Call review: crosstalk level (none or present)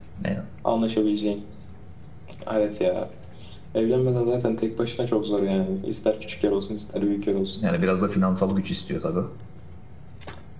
none